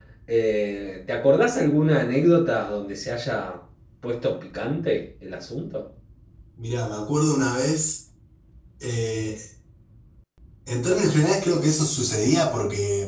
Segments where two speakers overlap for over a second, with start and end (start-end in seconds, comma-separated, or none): none